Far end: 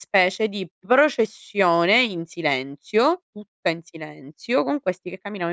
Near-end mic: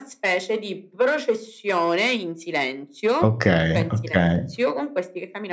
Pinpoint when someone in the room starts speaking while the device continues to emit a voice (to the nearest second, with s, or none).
3 s